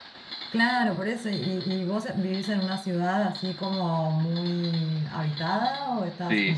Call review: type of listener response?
taking over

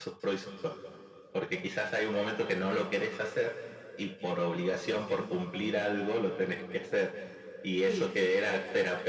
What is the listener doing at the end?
listening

